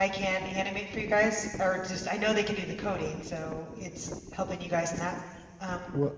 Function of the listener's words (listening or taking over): taking over